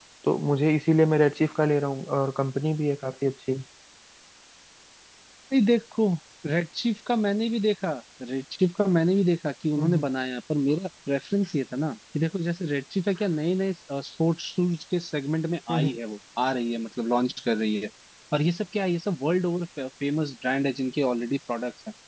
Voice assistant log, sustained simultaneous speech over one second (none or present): none